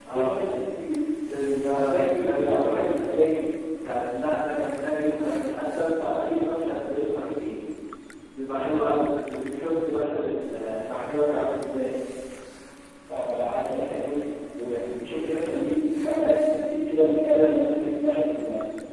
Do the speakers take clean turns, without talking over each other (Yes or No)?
No